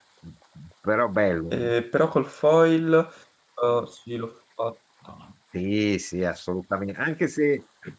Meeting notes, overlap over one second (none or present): none